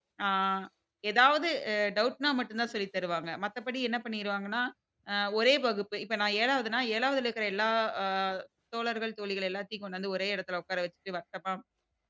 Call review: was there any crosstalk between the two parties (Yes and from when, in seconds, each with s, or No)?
No